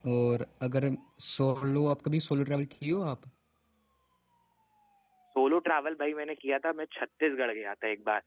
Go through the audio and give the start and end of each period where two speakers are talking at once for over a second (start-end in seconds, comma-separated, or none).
none